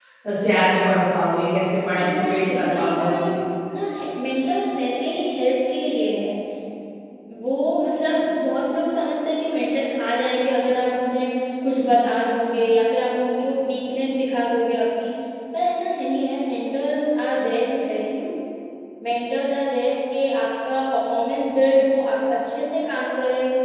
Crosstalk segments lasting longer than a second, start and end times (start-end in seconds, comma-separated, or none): 2.0-3.3